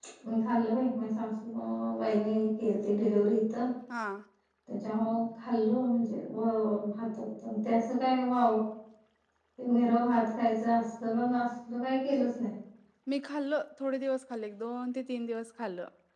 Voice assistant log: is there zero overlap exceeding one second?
Yes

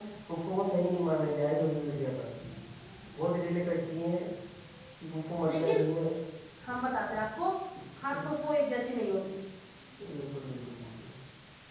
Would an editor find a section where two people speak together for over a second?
No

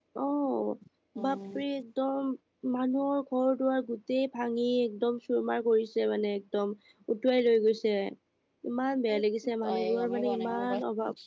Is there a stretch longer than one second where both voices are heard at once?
Yes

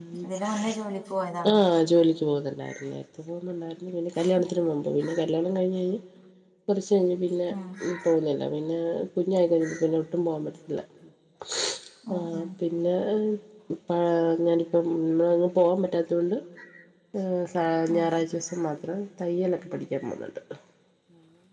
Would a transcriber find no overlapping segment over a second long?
Yes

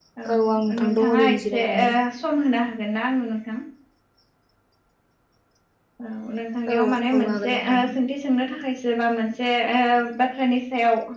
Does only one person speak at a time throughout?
No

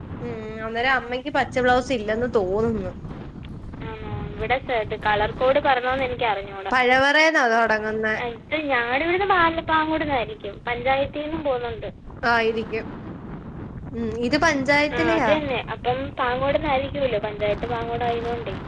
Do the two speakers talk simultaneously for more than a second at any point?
No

